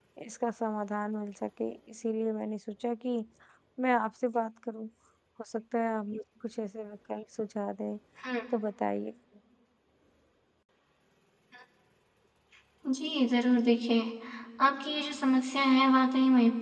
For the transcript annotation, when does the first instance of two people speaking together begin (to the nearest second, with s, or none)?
none